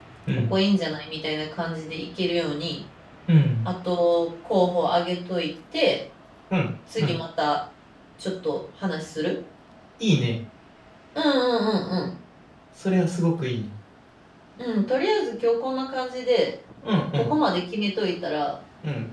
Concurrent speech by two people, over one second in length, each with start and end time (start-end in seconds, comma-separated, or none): none